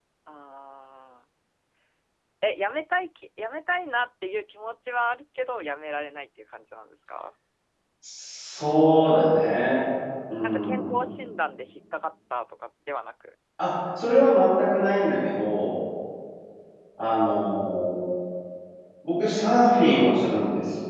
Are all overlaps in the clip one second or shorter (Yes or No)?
Yes